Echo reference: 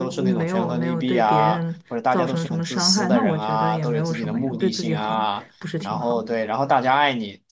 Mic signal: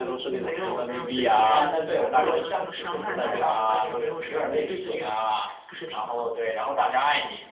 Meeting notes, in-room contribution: present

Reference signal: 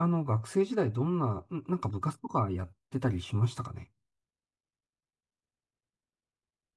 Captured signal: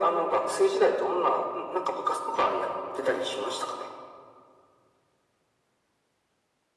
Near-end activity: none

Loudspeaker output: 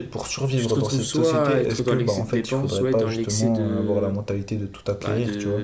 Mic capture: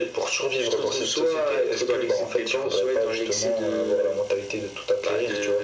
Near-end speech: none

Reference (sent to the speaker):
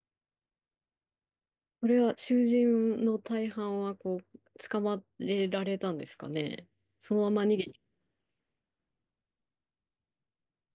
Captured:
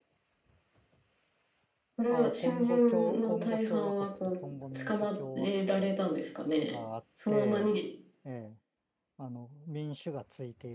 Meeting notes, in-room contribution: present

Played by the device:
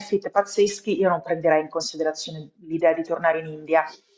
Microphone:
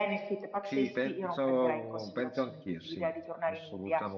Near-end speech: present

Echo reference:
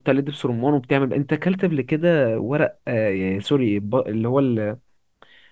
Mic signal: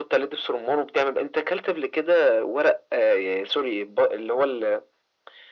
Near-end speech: none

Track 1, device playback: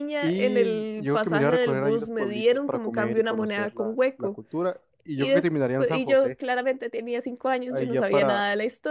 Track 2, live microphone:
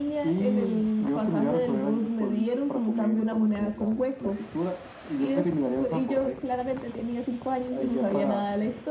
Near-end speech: none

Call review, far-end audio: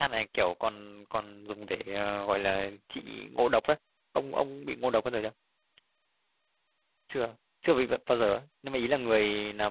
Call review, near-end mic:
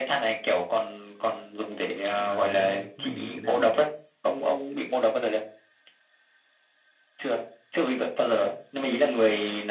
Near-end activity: present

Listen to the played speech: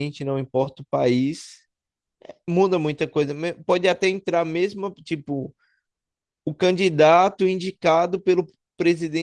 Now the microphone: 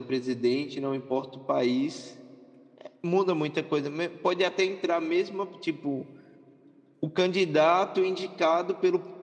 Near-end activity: none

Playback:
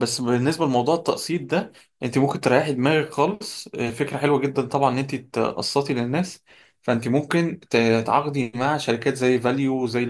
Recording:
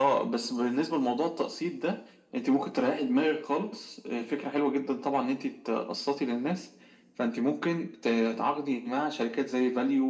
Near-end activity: none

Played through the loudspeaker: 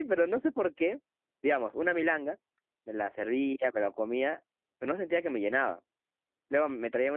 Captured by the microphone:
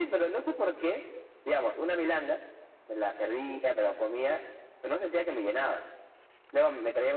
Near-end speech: none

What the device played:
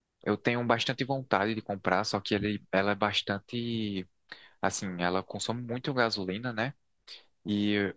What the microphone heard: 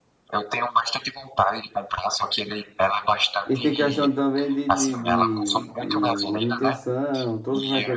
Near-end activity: present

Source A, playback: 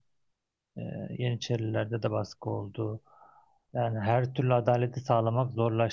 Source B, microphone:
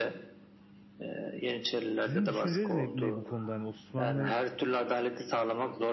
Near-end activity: present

